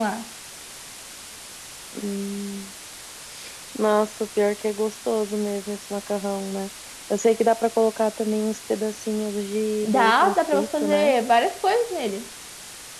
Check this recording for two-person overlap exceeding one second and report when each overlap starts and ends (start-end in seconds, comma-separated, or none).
9.8-11.2